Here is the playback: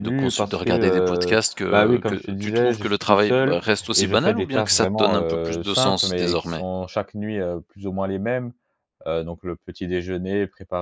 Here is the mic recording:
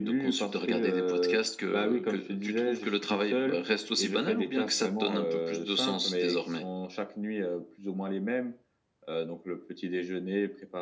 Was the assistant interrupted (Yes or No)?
No